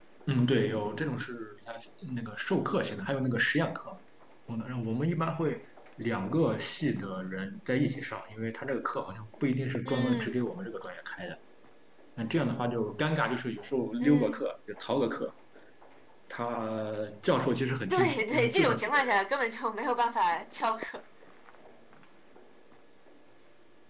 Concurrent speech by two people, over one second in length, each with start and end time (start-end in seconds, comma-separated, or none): 17.9-19.1